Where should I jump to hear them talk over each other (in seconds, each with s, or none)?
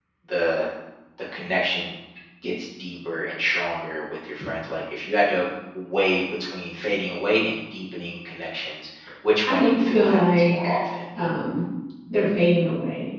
9.4 s